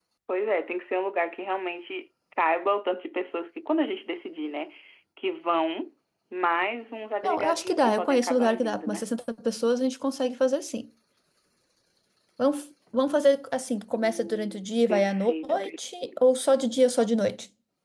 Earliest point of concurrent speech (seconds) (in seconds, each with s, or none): 7.2 s